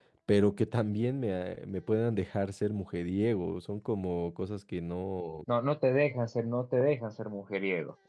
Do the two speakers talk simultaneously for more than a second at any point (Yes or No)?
No